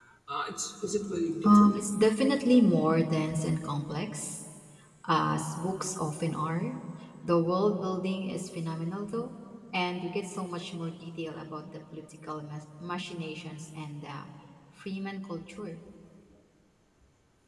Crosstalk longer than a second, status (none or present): none